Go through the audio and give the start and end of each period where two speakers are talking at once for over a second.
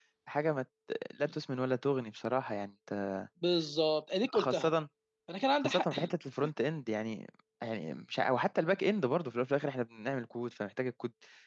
none

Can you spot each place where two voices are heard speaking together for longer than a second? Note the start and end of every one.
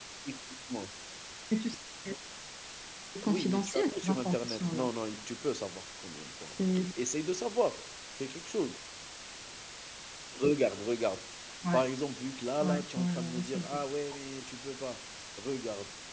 3.3-4.9, 12.6-13.8

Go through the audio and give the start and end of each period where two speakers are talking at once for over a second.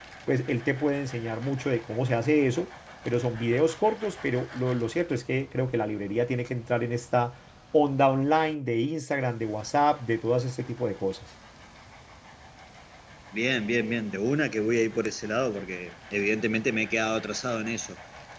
none

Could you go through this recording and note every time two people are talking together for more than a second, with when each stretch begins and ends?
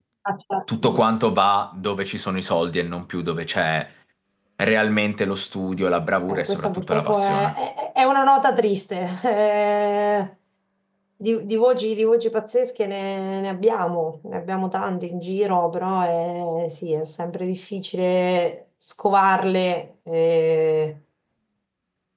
6.3-7.5

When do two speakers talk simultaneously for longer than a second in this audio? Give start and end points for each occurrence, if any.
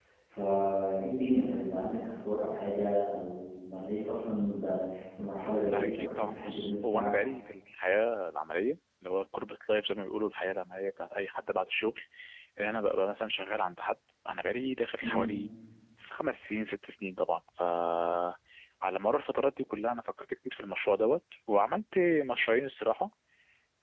5.7-7.1

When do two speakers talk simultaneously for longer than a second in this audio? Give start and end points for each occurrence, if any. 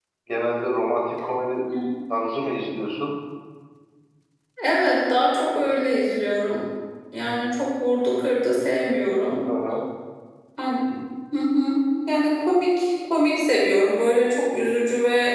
none

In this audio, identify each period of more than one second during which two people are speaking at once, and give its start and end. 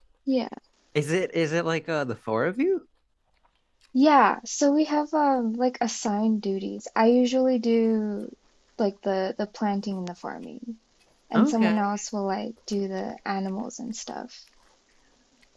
none

